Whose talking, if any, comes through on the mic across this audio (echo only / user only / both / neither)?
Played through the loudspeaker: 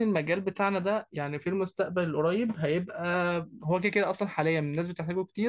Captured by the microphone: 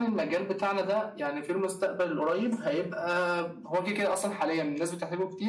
echo only